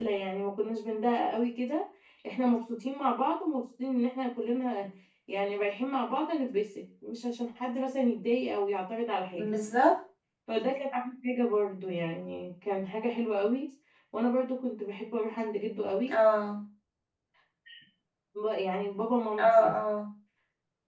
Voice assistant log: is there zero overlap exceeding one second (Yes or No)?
Yes